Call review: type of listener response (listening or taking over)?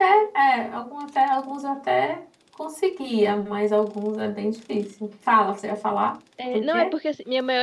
taking over